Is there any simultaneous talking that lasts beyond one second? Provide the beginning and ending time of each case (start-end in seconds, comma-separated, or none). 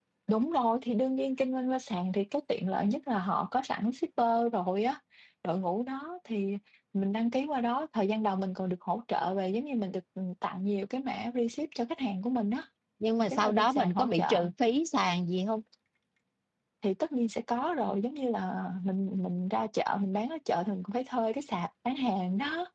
13.2-14.4